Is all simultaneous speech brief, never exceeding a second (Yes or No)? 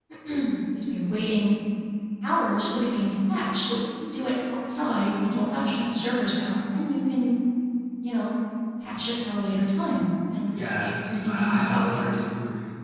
No